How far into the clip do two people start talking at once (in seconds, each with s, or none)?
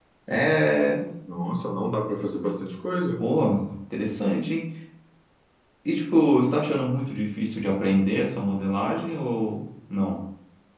none